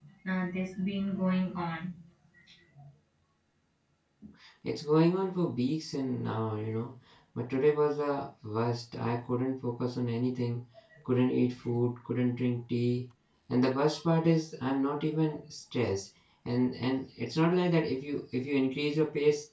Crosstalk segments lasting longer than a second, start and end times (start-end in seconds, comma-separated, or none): none